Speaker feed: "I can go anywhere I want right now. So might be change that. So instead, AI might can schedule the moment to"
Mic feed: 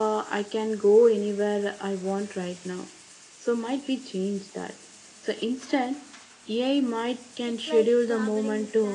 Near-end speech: present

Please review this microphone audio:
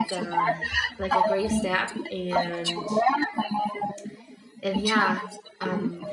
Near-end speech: present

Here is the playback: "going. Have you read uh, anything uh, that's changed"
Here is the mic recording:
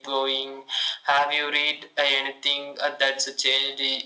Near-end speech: none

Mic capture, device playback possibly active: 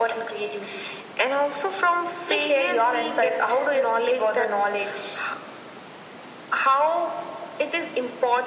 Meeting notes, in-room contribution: none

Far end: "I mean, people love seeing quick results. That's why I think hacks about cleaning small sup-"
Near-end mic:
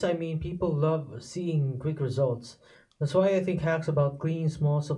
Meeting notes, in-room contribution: none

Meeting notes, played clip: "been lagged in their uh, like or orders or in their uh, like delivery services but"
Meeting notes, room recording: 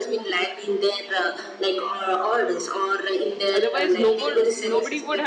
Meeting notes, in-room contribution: present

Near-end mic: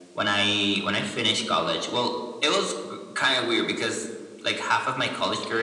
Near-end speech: none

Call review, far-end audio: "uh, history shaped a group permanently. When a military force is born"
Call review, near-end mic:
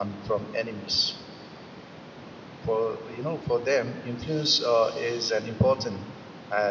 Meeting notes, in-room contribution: present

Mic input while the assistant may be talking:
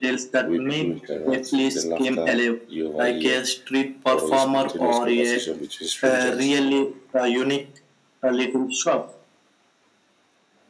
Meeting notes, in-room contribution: present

